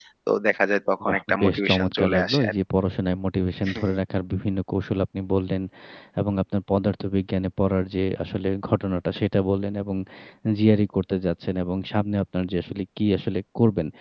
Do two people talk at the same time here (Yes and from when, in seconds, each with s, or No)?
Yes, from 1.1 s